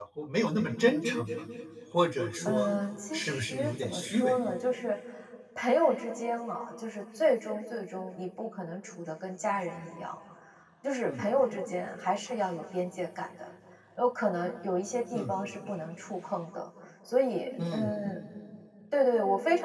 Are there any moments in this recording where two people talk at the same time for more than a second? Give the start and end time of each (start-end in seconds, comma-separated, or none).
3.1-4.3